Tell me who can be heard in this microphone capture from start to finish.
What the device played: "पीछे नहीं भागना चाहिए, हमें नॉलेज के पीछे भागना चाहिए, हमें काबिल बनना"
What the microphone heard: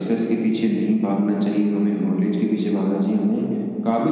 echo only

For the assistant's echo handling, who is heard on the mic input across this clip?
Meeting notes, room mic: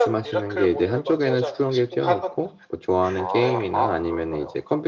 both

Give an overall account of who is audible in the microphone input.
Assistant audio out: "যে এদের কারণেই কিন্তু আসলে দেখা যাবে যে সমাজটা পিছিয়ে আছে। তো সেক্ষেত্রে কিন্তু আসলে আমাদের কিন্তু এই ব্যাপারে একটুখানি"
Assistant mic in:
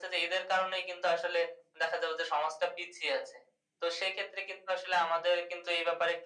echo only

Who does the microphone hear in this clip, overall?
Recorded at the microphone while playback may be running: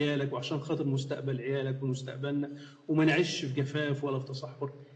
echo only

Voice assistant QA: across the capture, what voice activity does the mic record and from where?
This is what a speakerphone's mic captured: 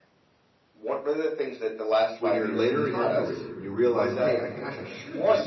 both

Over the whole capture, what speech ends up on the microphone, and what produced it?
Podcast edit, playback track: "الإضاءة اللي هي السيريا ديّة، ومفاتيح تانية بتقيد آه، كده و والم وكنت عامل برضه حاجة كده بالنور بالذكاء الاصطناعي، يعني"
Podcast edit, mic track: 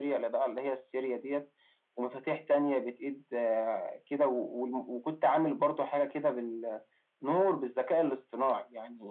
echo only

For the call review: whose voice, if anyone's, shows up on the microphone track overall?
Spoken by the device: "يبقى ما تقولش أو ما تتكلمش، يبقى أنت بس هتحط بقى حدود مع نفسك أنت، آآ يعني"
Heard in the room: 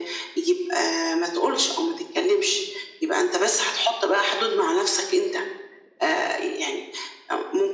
echo only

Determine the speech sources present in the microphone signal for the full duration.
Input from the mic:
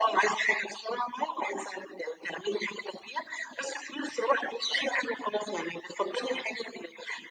echo only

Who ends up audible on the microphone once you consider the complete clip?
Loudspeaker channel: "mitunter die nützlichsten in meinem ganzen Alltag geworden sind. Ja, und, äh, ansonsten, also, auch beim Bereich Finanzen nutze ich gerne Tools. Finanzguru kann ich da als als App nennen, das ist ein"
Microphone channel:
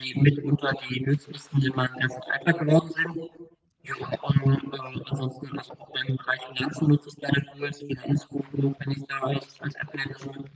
echo only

